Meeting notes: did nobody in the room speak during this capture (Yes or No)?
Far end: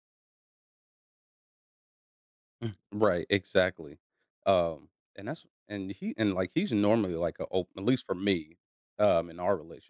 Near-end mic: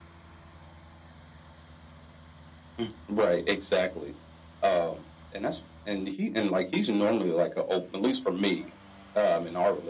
Yes